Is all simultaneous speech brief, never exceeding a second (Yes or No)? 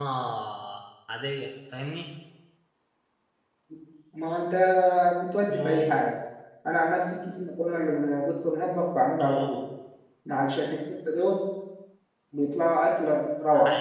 Yes